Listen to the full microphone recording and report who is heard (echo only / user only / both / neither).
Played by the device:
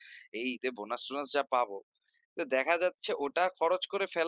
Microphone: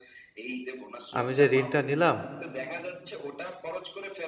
both